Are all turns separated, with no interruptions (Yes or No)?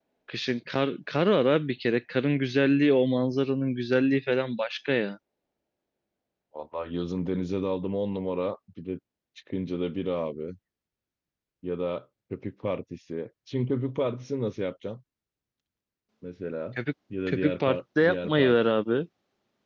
No